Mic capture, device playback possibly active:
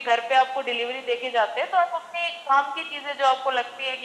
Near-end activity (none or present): none